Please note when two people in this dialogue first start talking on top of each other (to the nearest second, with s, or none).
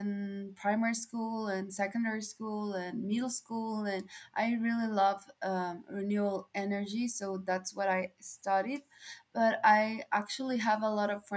none